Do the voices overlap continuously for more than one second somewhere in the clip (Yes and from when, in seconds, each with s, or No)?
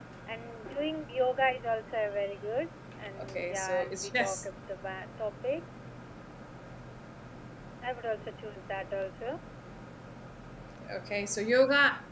Yes, from 3.2 s